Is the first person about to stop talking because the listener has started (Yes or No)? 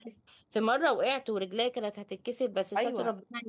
Yes